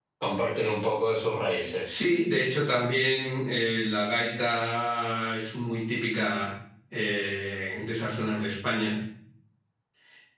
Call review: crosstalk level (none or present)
none